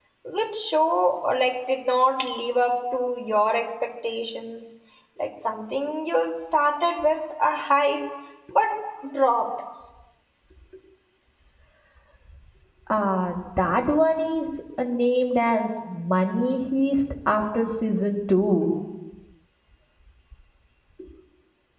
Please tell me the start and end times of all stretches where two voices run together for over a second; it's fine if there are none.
none

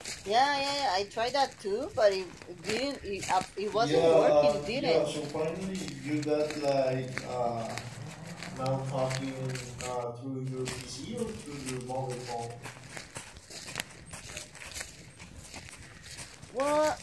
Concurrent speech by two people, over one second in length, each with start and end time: 3.7-5.1

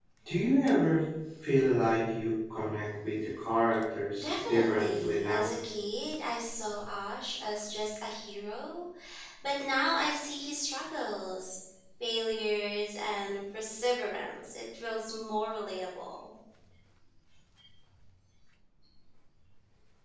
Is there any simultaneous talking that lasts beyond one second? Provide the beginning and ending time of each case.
4.2-5.5

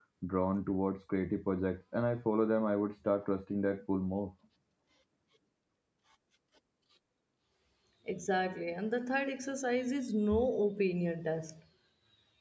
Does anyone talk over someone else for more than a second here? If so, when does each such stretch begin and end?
none

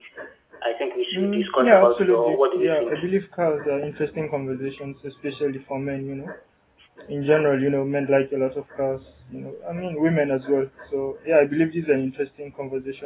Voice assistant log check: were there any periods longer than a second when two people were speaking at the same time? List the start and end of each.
1.1-3.0

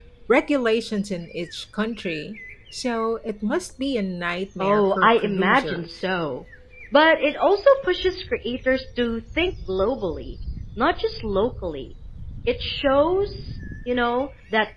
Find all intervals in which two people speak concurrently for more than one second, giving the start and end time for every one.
4.6-5.9

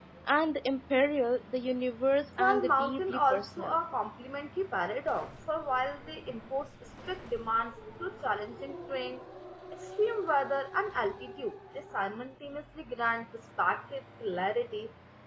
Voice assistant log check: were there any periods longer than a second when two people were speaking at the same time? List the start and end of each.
2.4-3.8

